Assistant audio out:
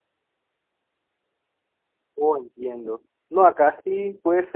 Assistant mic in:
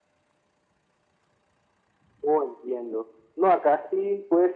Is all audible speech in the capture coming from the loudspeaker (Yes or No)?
Yes